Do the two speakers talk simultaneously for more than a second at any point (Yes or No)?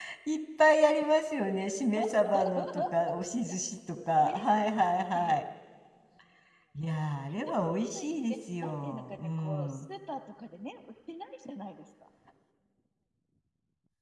Yes